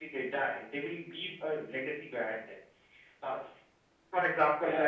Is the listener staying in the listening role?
Yes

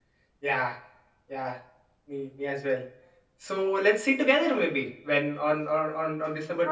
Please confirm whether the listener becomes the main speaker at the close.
Yes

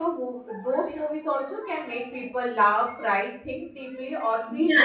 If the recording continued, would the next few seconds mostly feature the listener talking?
Yes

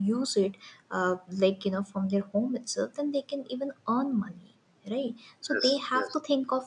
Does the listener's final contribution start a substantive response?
No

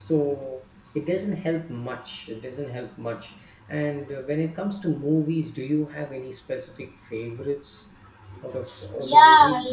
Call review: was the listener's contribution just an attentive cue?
No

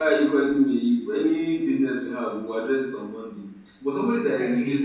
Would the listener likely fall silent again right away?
Yes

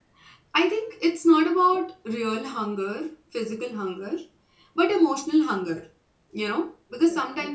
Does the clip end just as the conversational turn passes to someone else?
No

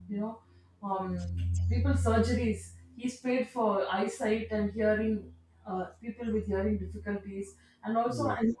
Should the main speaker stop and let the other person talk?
No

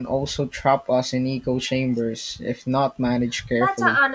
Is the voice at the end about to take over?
Yes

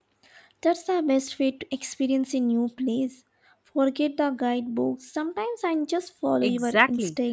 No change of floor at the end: No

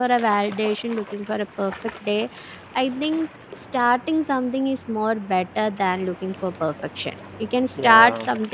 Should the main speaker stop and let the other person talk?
No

